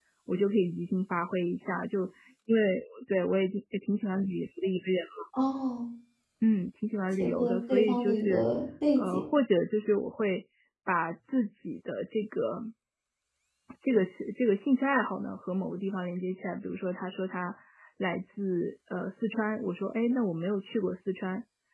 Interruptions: present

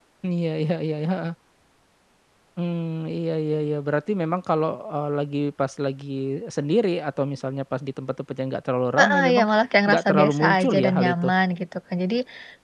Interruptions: present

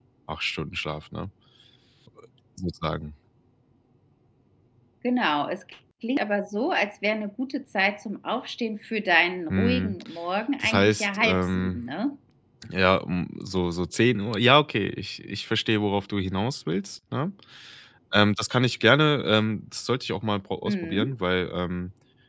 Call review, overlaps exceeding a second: present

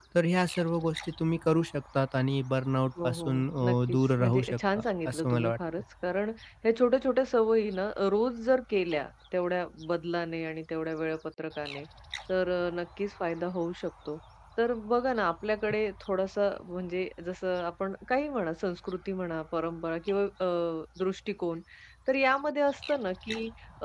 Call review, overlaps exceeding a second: present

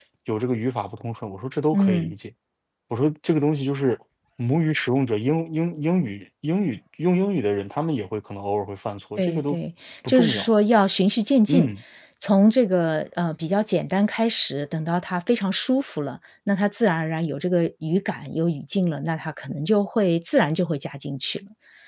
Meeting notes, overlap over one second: none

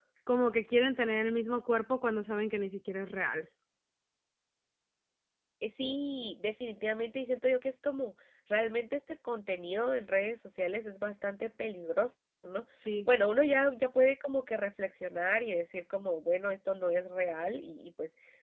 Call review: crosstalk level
none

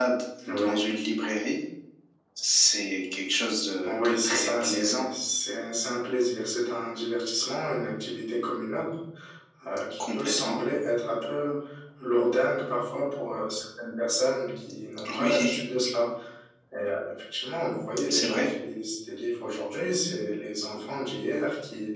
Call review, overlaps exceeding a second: present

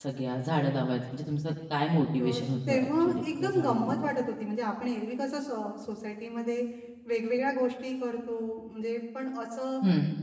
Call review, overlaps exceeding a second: present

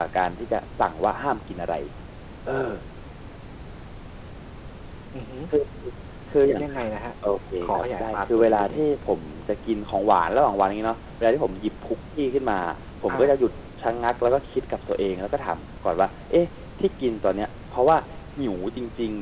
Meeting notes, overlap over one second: present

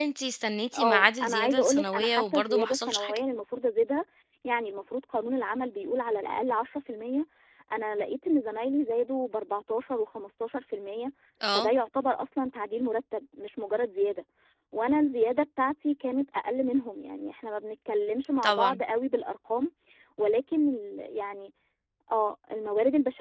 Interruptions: present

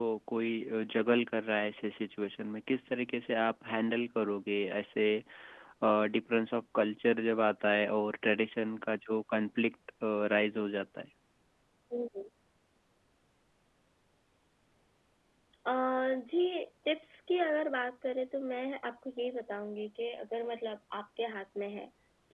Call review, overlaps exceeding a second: none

